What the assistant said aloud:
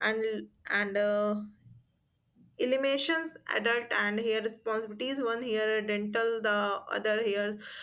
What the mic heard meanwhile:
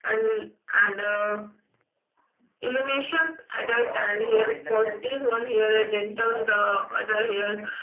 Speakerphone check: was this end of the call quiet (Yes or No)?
No